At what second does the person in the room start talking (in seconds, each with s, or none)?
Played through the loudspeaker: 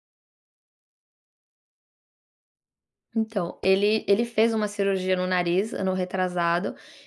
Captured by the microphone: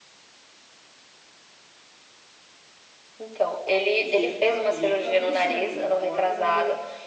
4.0 s